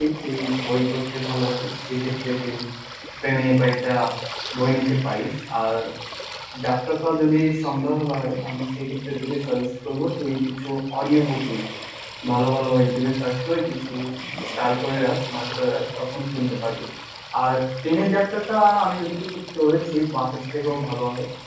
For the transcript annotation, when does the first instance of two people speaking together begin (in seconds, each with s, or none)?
none